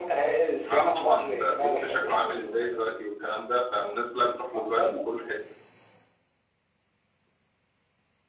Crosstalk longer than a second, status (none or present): present